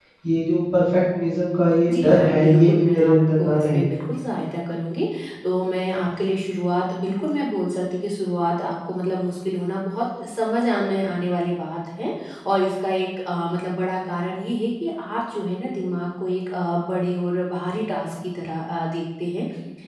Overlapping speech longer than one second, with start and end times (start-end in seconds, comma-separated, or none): 1.9-3.8